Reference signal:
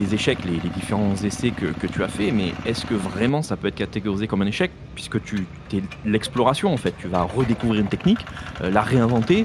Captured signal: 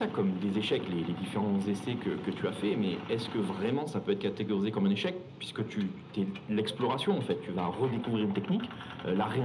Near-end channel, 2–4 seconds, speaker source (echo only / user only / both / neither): echo only